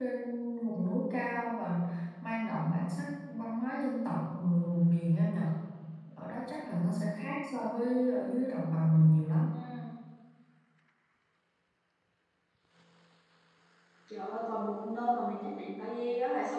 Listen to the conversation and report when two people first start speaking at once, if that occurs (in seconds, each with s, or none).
none